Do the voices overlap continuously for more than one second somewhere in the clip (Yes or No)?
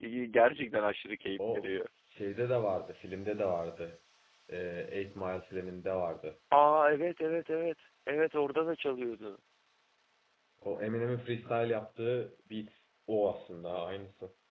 No